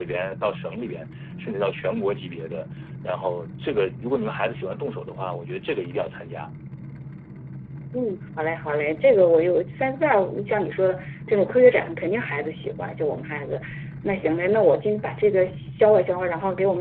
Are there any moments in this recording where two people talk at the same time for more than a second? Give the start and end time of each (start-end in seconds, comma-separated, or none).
none